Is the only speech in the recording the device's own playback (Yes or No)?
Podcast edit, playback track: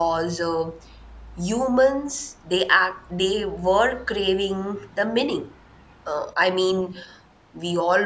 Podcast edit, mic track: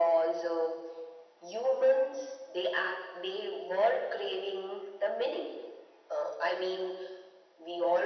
Yes